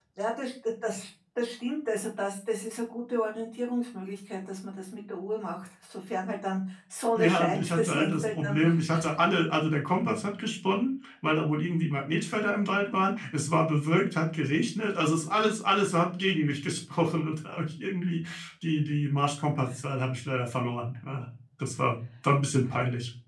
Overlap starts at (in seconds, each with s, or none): 7.2 s